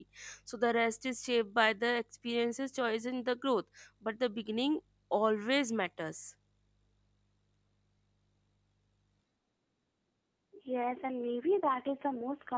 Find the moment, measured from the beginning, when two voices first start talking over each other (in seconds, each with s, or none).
none